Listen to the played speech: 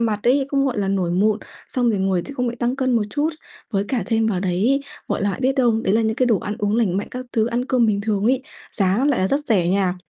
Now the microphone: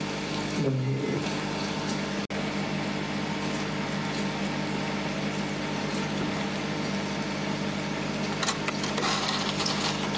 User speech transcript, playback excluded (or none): Mình hiể